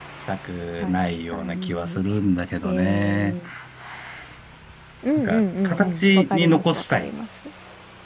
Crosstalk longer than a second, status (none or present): present